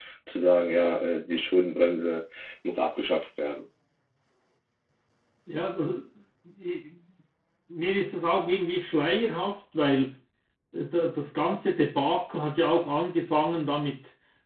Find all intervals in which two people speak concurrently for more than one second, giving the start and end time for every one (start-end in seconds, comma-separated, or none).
none